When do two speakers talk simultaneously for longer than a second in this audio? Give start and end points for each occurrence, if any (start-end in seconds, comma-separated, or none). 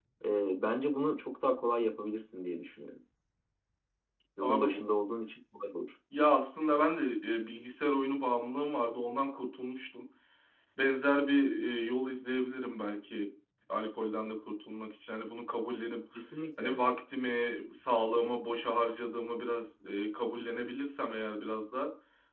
none